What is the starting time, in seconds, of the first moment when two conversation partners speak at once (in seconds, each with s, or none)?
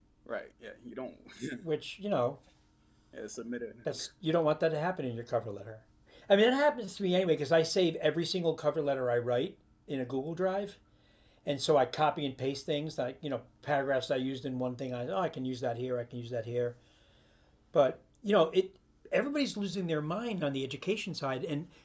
none